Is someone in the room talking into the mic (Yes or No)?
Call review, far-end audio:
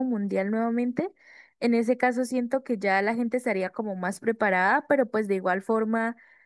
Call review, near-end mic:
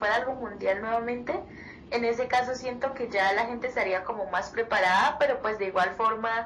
No